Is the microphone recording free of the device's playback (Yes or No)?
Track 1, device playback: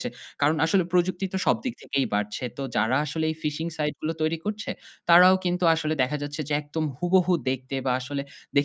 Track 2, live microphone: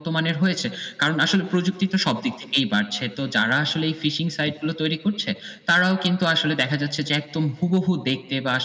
No